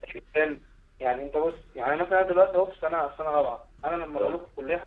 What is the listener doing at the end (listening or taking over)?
listening